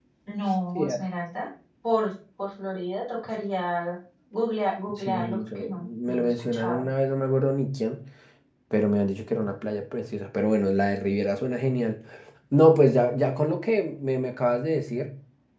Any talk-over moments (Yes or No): Yes